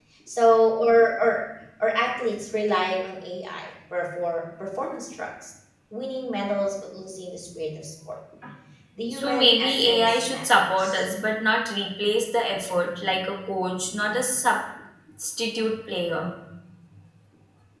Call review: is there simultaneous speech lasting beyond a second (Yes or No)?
Yes